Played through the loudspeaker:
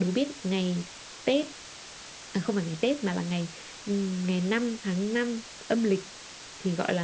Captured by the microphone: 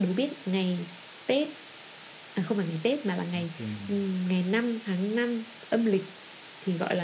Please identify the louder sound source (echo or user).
echo